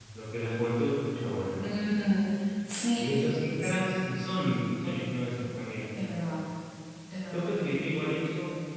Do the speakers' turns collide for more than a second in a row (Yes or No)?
No